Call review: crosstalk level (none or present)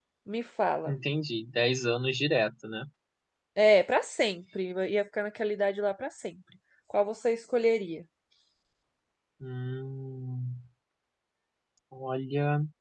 none